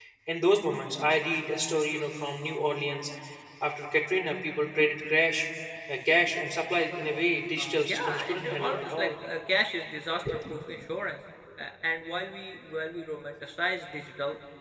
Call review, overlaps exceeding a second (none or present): present